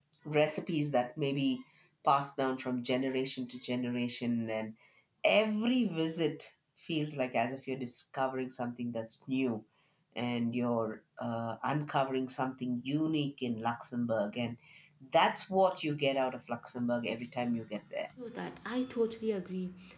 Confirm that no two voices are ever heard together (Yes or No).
Yes